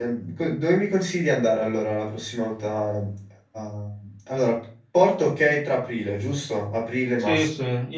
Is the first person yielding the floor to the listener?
Yes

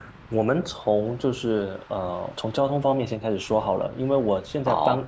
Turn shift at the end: No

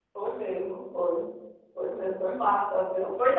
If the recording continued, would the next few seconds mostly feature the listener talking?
Yes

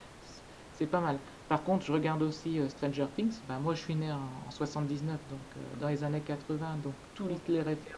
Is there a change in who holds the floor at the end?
No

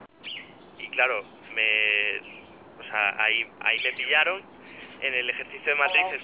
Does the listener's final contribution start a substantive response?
No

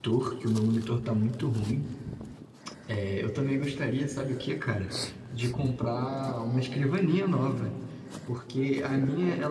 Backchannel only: Yes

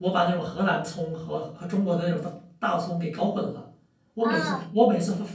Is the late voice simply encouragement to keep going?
Yes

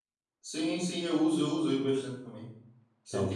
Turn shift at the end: No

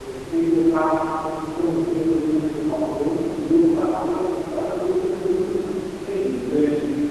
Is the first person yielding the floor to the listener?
Yes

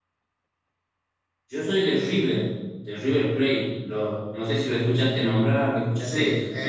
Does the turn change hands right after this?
Yes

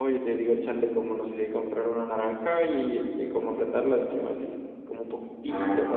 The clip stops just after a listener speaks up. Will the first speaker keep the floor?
Yes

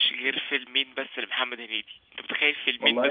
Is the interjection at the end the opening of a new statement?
No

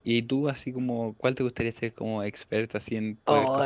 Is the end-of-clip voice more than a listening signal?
Yes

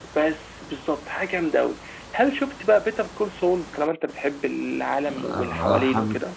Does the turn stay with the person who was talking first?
No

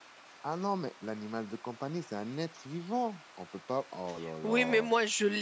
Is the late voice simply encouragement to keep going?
No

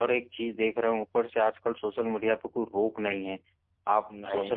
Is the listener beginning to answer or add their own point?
No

